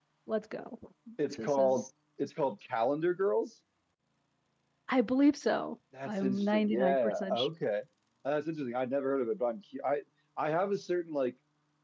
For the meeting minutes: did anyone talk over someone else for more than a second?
Yes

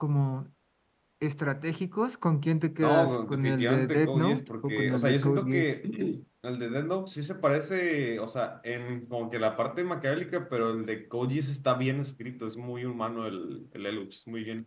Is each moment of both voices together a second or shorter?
No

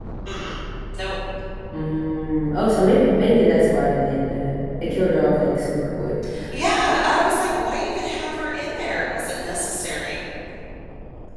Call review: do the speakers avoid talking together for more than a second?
Yes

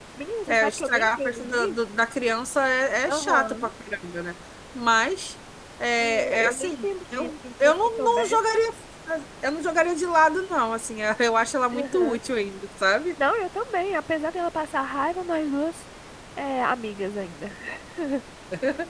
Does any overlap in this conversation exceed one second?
Yes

